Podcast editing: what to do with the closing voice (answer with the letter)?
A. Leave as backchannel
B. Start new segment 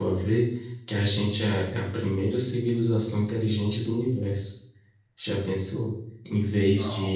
A